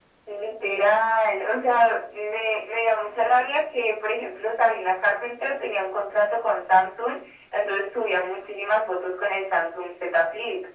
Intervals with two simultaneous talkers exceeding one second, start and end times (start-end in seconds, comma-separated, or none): none